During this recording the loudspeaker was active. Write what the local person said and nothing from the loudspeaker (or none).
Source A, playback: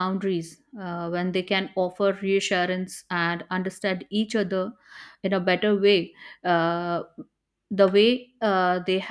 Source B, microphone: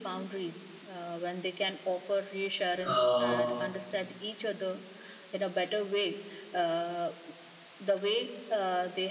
uh,